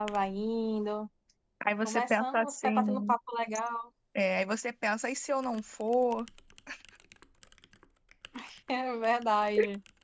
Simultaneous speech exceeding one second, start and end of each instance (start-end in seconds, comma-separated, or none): 1.8-3.1